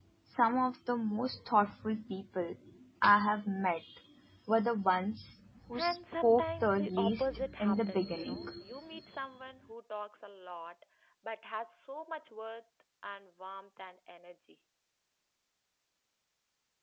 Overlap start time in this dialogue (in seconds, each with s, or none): 5.7 s